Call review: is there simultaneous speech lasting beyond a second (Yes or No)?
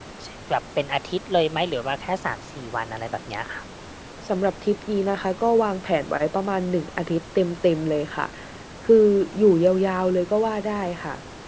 No